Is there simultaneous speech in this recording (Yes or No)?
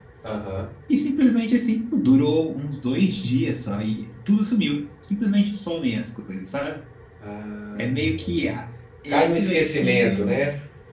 Yes